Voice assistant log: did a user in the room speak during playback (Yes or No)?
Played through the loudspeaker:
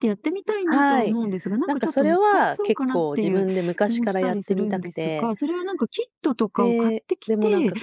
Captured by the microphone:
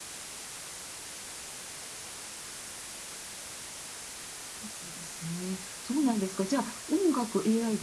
Yes